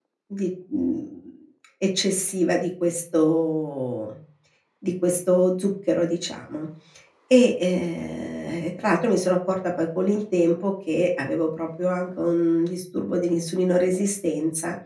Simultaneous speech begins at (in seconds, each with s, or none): none